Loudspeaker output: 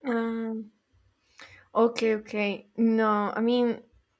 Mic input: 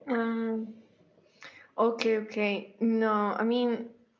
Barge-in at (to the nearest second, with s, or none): none